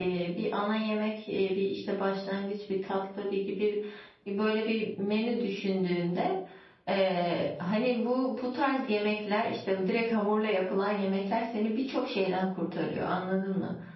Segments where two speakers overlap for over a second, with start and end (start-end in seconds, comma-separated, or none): none